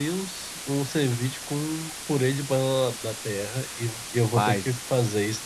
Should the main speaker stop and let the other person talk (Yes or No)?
No